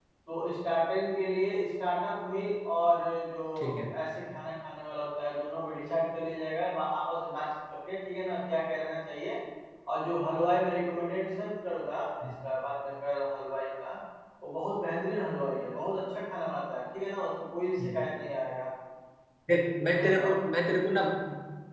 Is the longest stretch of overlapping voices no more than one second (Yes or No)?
Yes